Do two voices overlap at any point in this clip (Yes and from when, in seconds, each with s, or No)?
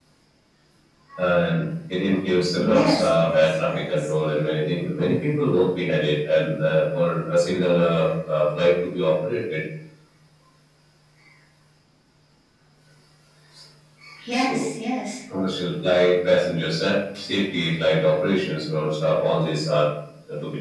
Yes, from 2.6 s